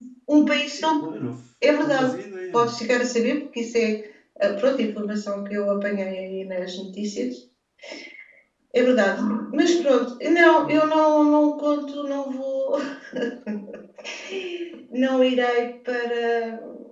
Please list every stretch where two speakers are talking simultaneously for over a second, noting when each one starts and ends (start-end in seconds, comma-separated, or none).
none